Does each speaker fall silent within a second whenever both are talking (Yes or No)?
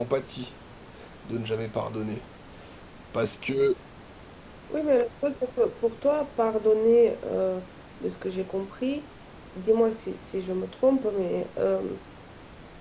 Yes